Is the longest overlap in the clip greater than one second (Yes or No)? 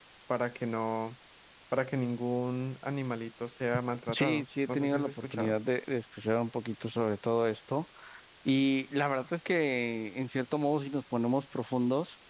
Yes